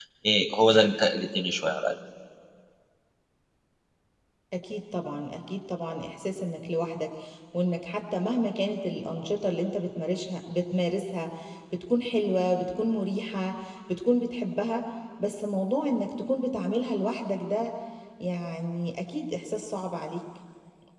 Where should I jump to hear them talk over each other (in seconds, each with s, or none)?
none